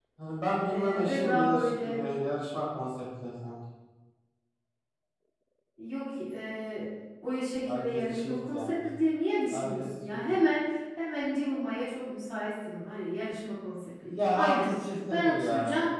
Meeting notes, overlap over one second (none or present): present